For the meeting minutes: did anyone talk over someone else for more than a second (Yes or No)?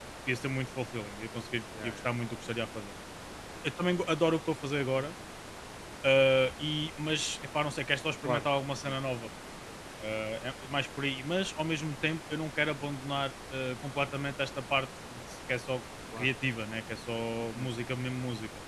No